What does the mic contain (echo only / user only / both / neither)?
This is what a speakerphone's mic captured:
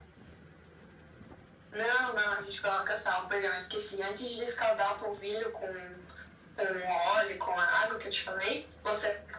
echo only